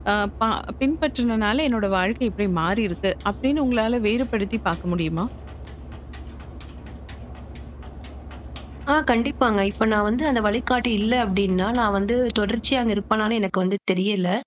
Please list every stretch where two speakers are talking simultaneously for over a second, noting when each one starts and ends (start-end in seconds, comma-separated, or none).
none